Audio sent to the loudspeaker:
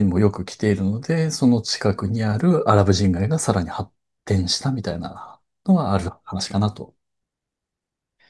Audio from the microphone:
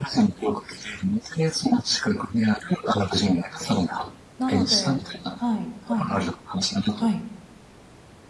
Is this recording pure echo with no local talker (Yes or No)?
No